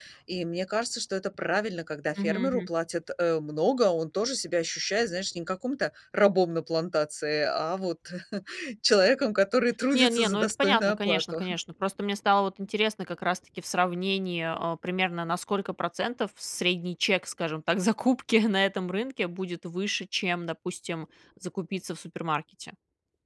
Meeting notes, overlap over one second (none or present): present